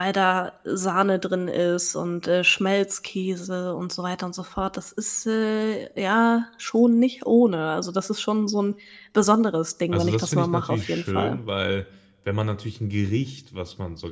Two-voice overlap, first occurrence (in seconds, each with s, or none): 9.9 s